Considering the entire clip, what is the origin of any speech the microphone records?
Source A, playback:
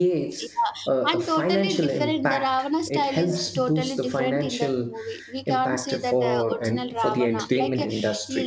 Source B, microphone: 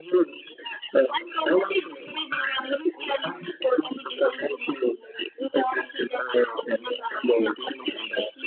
echo only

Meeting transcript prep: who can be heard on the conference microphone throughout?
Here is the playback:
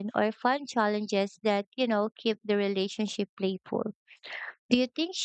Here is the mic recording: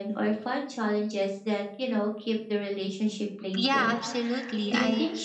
both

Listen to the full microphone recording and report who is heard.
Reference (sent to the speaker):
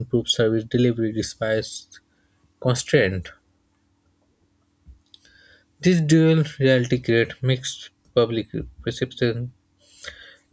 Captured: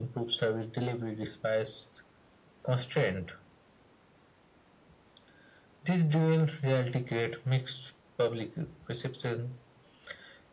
echo only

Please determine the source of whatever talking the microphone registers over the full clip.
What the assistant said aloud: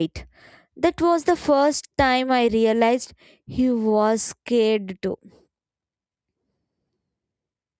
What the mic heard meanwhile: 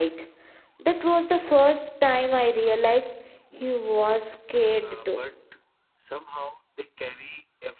both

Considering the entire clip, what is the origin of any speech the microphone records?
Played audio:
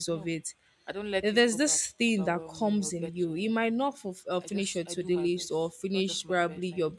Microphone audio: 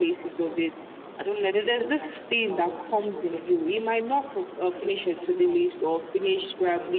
echo only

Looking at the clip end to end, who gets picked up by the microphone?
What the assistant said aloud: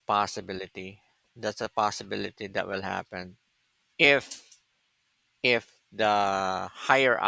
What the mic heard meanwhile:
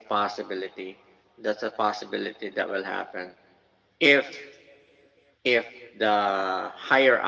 echo only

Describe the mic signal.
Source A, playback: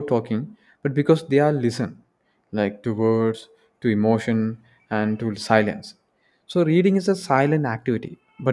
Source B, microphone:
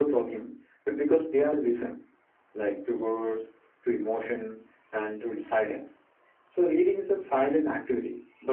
echo only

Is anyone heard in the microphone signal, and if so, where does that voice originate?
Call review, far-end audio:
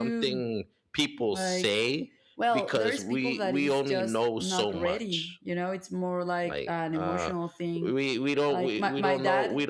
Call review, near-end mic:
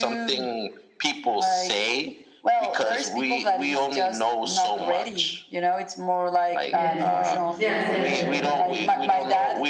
both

